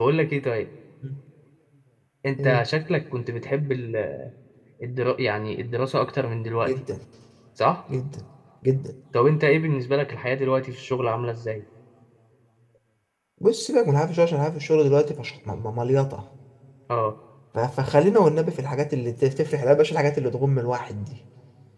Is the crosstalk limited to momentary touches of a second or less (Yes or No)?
Yes